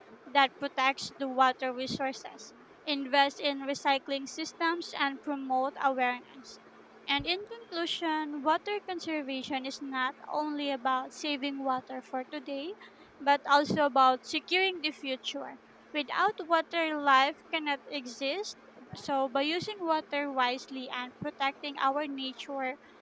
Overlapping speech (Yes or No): No